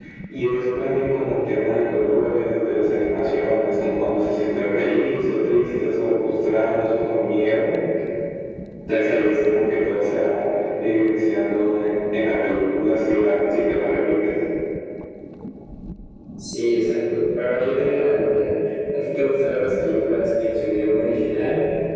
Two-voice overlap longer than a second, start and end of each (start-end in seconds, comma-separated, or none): none